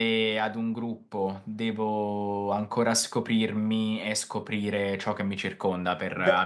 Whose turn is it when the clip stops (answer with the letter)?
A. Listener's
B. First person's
A